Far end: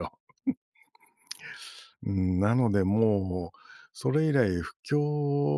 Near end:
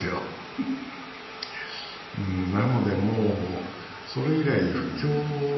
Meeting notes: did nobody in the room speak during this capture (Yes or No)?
No